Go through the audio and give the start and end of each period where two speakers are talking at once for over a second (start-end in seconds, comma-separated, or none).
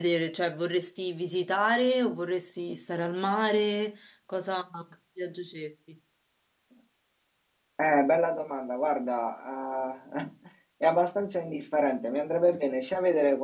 none